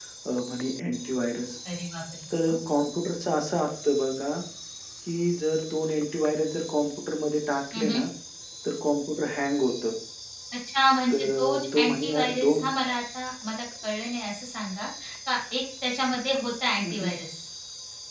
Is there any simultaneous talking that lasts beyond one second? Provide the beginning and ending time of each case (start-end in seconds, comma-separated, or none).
11.1-12.6